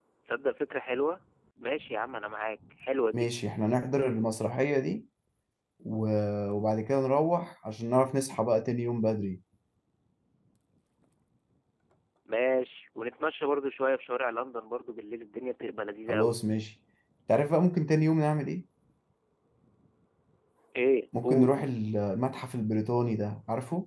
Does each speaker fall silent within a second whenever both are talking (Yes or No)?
Yes